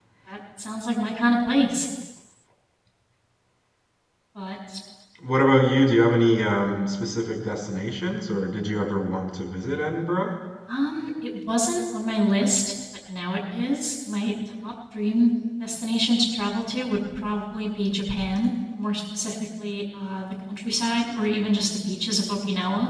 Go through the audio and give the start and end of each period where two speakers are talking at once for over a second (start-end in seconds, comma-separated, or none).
none